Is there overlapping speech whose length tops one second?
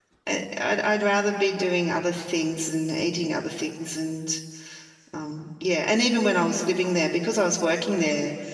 No

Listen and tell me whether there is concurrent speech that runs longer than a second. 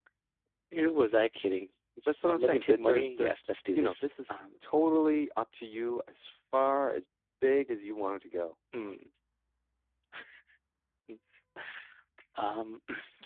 Yes, from 2.1 s

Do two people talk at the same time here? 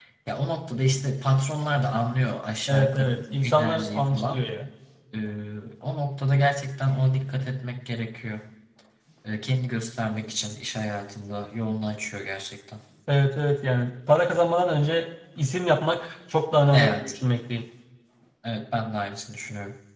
Yes, from 2.7 s

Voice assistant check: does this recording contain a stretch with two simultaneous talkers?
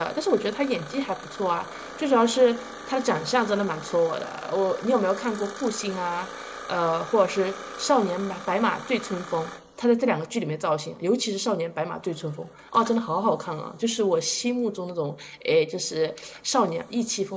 No

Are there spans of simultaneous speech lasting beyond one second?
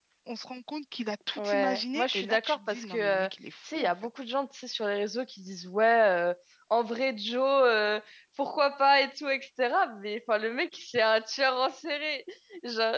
Yes, from 1.4 s

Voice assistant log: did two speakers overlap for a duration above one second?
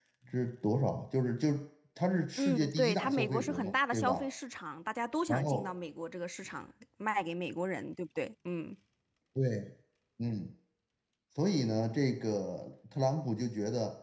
Yes, from 2.4 s

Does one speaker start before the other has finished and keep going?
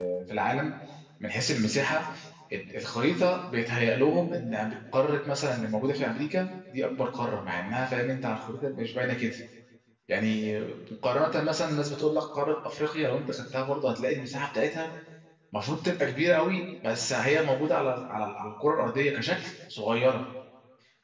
No

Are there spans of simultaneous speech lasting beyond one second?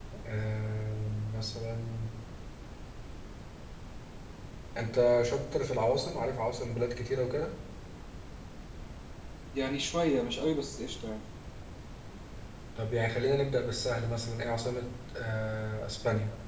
No

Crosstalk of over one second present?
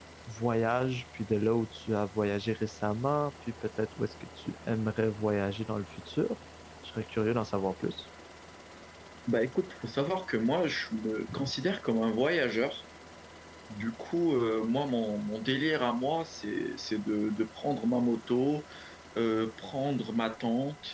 No

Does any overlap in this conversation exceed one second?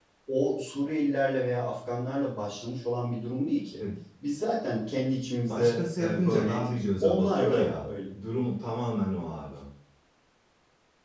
Yes, from 5.5 s

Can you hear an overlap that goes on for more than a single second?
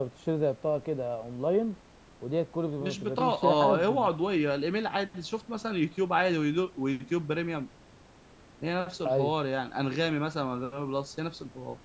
Yes, from 2.8 s

